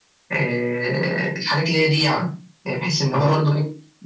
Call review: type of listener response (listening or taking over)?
listening